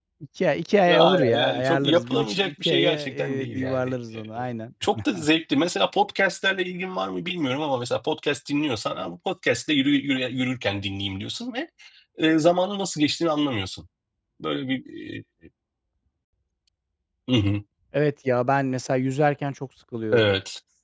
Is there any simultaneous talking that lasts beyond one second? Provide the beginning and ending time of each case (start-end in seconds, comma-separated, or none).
1.0-4.3